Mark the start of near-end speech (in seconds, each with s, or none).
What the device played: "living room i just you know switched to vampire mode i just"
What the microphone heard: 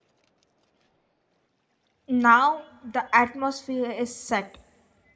2.1 s